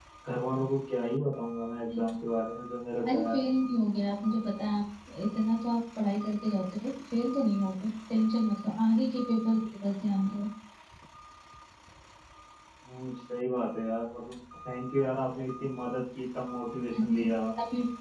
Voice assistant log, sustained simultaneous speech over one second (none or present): none